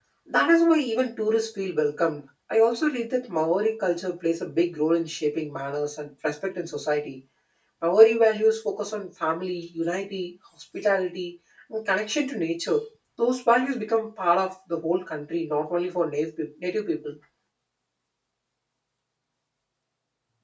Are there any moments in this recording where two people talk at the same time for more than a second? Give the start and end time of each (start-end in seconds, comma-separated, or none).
none